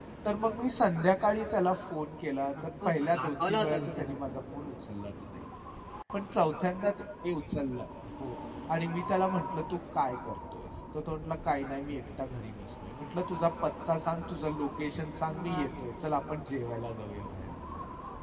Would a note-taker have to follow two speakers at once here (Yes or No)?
Yes